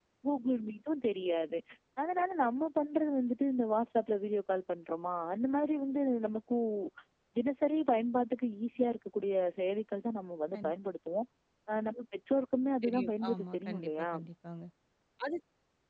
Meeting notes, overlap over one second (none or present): present